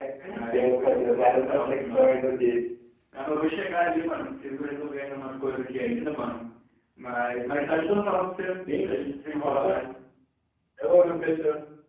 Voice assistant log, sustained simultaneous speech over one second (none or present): present